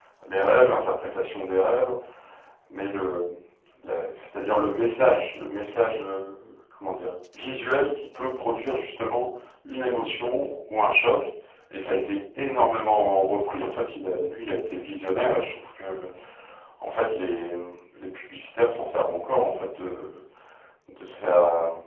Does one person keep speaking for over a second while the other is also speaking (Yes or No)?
No